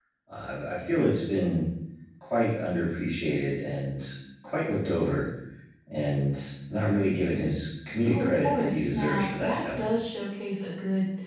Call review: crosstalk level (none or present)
present